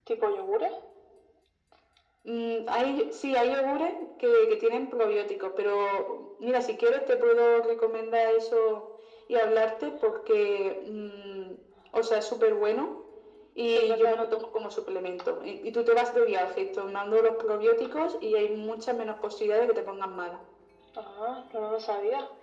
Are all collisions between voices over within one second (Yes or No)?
Yes